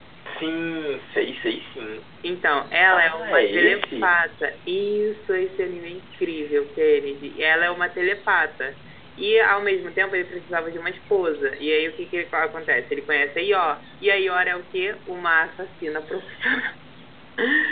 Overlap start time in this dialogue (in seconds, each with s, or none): 2.9 s